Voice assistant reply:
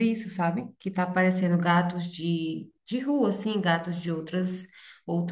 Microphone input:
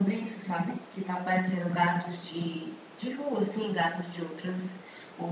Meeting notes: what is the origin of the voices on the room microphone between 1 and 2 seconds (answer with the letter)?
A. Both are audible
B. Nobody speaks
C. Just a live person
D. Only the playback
D